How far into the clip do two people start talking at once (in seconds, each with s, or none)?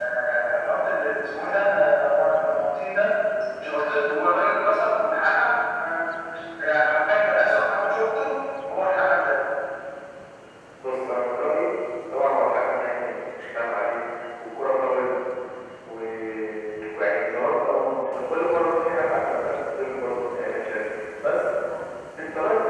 none